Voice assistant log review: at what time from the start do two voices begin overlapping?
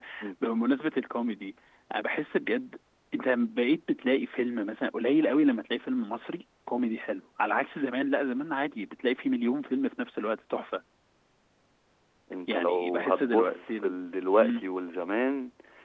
12.5 s

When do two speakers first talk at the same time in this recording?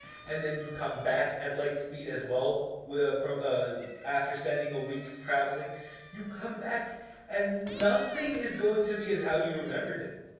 none

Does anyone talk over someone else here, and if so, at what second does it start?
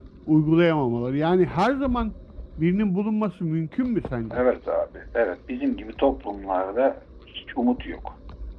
none

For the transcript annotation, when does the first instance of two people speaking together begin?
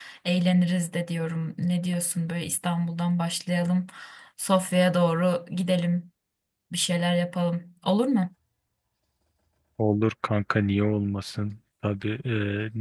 none

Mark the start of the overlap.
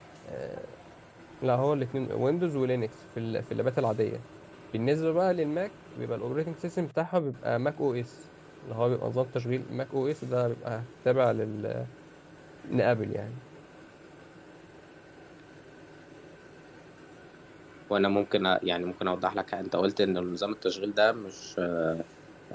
none

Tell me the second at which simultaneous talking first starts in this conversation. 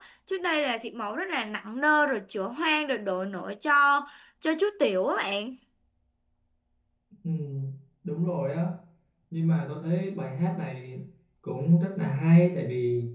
none

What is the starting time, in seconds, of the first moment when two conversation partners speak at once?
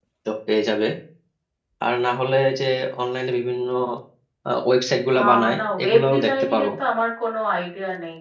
5.2 s

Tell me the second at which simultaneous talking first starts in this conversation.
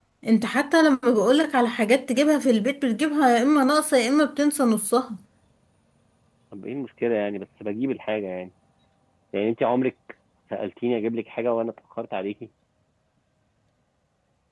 none

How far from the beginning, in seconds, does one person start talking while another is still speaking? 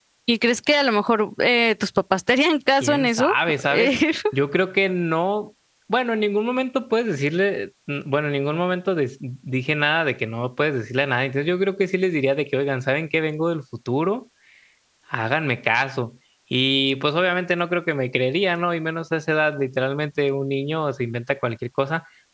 2.8 s

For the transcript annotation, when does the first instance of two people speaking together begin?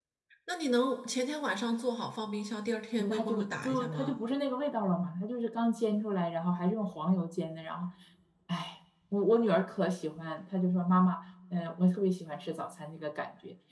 3.0 s

